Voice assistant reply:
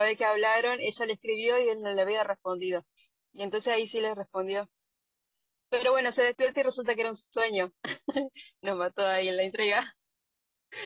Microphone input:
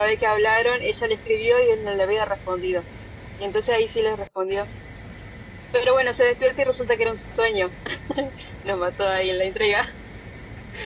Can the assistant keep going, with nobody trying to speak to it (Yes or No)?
Yes